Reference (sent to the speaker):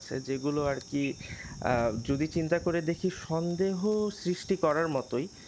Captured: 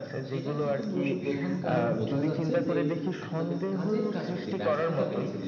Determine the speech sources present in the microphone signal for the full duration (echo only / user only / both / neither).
both